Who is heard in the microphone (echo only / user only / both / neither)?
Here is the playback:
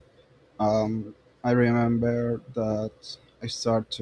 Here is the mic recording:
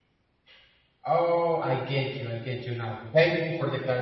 user only